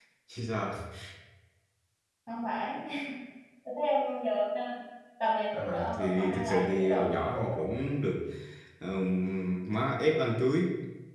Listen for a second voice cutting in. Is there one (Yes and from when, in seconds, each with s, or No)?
Yes, from 5.5 s